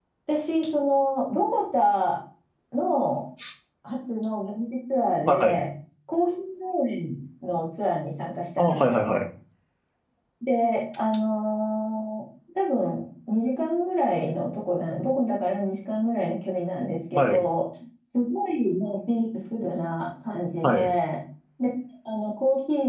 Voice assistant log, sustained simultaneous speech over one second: none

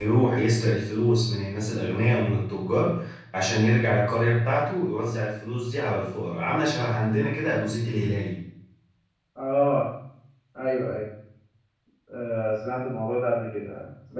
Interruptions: none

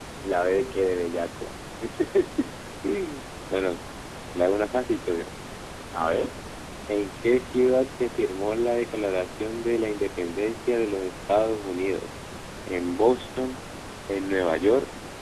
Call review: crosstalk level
none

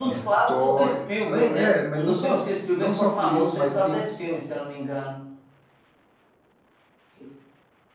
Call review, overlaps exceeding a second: present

